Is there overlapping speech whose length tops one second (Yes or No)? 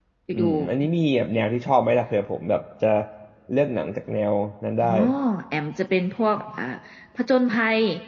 No